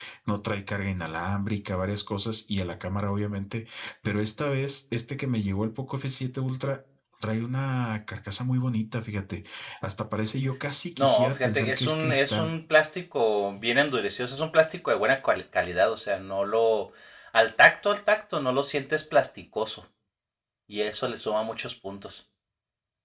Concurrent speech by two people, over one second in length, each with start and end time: 11.0-12.5

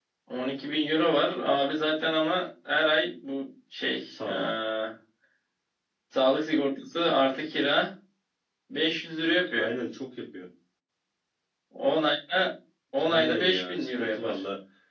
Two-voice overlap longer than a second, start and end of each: 13.0-14.4

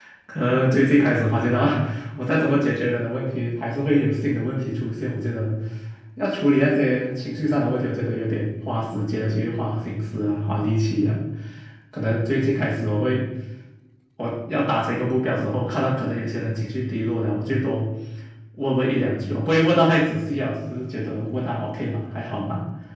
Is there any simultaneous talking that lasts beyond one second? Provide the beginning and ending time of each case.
none

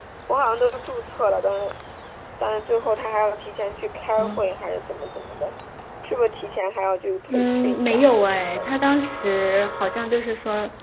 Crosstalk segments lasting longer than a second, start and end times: 7.3-8.6

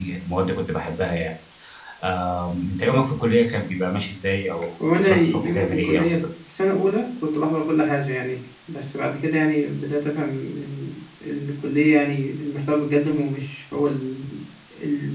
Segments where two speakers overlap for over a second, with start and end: 5.0-6.2

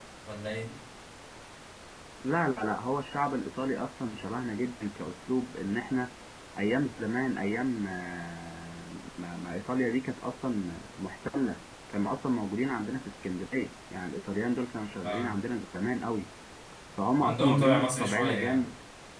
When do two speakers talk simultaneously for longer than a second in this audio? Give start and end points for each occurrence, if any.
17.2-18.7

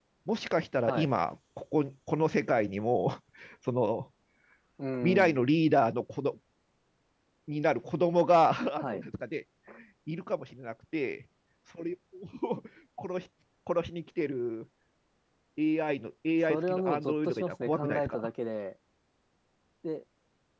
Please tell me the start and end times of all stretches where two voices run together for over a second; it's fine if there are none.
16.5-18.3

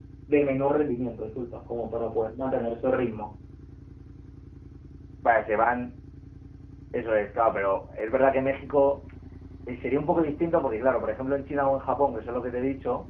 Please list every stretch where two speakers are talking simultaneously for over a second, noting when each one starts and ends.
none

